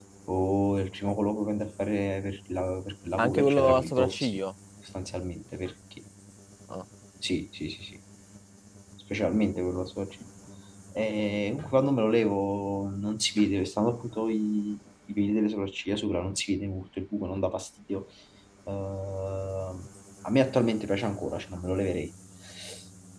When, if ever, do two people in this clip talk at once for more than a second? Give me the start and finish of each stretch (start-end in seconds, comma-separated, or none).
3.2-4.4